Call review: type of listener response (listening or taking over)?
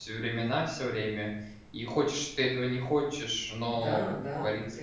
taking over